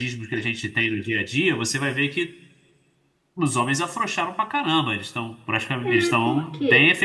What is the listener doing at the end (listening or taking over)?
taking over